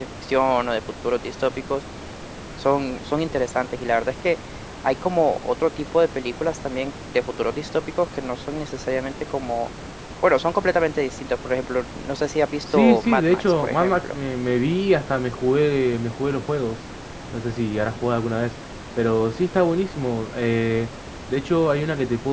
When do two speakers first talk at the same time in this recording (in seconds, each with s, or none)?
12.7 s